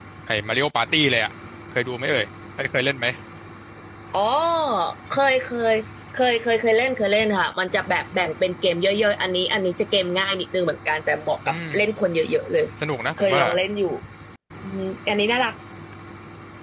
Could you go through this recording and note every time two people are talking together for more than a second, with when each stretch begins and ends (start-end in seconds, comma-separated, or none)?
none